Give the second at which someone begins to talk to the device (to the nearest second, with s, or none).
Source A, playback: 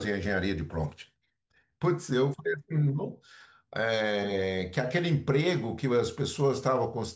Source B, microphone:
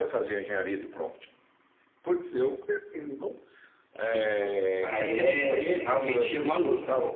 4 s